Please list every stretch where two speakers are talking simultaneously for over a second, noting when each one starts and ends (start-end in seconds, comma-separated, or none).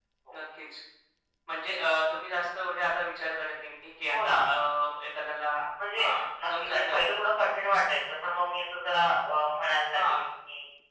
6.0-7.2